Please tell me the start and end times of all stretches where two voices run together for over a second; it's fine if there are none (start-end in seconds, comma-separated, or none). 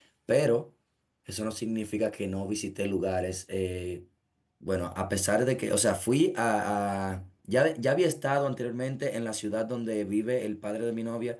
none